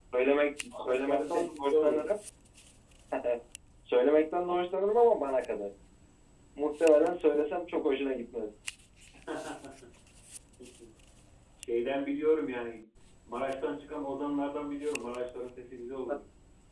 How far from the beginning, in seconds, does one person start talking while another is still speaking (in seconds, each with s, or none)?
0.8 s